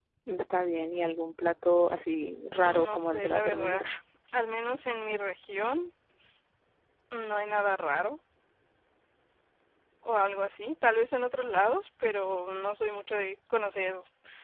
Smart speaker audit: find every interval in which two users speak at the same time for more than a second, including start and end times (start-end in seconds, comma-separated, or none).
2.6-3.8